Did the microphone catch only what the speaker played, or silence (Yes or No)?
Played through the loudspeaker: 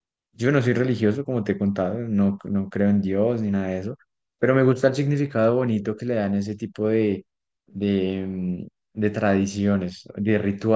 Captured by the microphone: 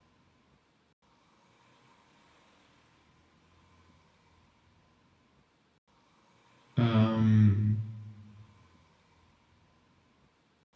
No